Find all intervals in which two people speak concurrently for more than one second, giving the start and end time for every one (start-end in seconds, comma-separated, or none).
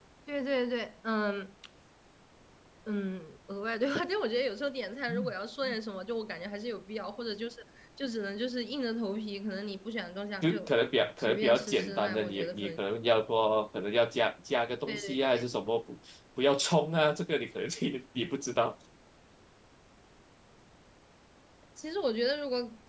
11.2-12.8